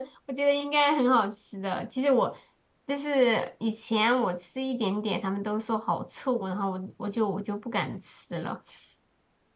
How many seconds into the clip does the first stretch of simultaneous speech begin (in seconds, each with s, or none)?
none